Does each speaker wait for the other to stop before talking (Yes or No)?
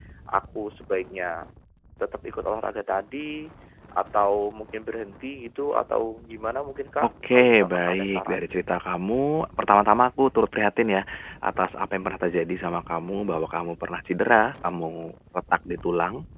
No